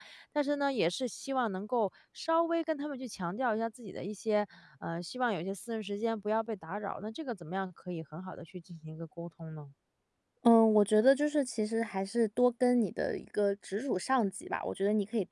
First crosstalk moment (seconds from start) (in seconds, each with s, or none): none